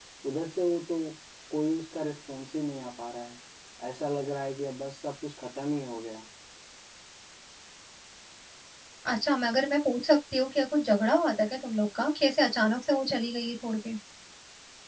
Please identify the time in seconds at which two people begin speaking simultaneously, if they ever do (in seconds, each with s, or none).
none